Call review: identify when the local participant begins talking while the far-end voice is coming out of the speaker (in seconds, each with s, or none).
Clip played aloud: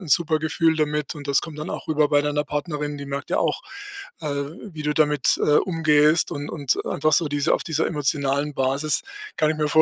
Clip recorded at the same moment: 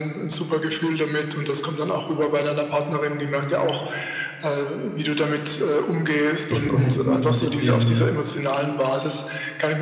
6.5 s